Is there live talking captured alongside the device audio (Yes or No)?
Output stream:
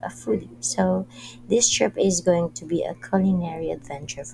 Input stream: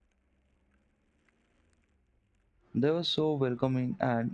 Yes